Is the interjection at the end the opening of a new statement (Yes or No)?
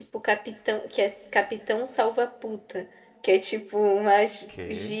No